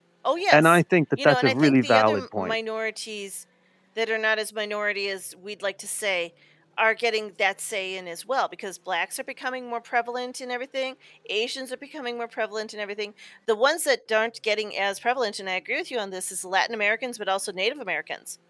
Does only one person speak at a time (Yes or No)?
No